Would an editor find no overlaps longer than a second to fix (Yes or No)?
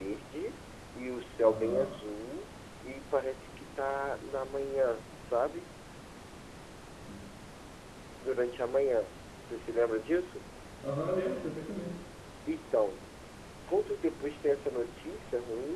Yes